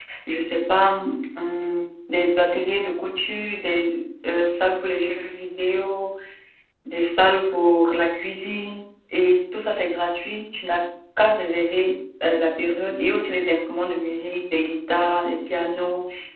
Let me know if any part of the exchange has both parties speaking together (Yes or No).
No